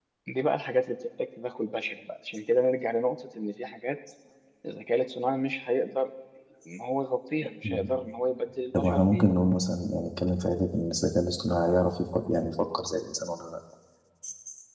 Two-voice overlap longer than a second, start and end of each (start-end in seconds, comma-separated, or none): none